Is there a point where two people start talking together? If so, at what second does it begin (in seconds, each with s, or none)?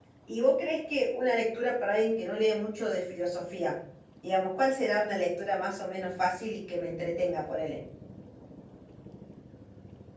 none